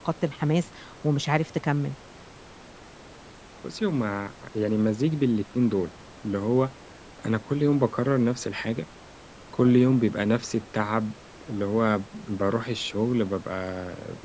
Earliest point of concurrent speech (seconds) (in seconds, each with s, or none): none